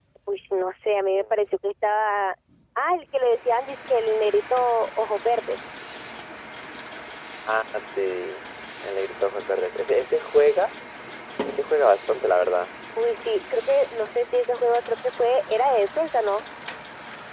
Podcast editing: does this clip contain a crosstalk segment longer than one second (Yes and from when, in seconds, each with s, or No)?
No